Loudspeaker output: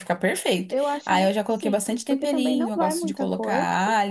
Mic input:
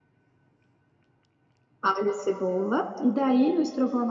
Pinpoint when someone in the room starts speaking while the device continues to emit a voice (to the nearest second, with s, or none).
2 s